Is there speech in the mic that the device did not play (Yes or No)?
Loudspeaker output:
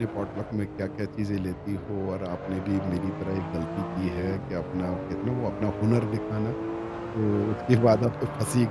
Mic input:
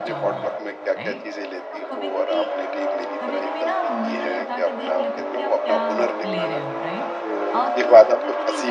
Yes